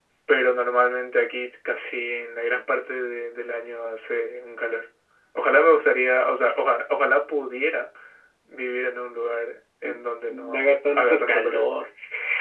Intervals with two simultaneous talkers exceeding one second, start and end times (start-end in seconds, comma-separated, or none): 10.3-11.6